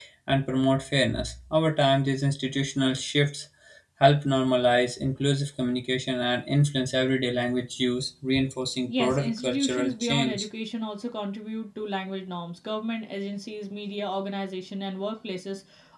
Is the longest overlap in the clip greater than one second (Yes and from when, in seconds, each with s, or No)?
Yes, from 8.9 s